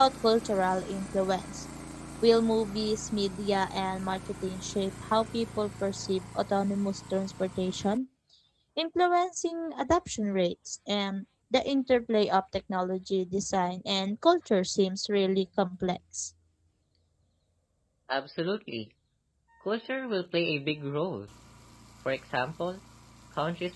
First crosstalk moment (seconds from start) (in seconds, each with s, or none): none